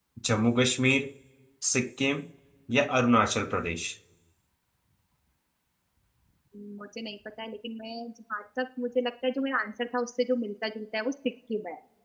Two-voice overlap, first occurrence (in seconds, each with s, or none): none